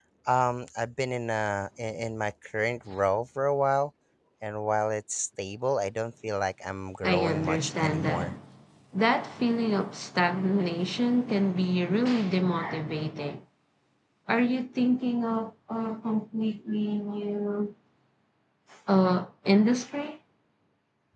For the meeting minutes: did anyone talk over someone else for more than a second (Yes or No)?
Yes